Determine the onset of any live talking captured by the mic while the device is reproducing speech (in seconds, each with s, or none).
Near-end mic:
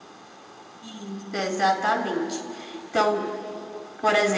none